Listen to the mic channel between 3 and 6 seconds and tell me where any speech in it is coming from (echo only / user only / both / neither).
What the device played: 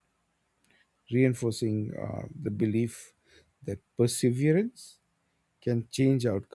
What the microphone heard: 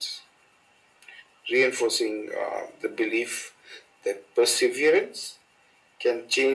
echo only